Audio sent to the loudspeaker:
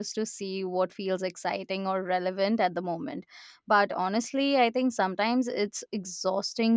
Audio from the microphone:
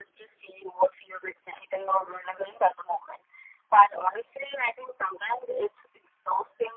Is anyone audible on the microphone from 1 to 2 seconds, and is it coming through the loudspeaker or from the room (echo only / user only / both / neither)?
echo only